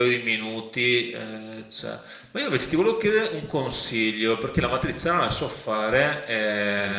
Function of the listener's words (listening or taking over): listening